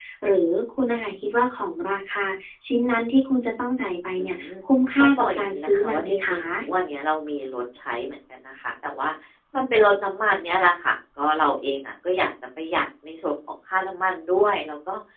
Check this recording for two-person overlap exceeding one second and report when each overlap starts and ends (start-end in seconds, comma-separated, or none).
5.0-6.4